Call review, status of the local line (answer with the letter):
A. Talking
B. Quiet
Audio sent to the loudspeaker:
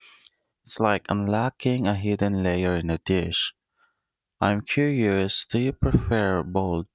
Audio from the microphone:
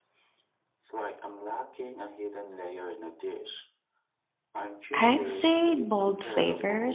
A